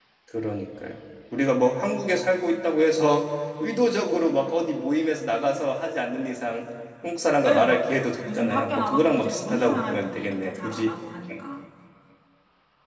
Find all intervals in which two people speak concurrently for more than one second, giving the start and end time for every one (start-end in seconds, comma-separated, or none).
7.4-10.9